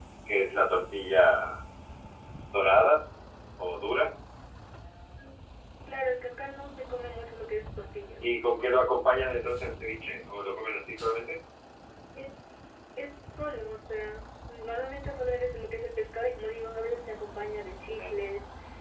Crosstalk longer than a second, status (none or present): none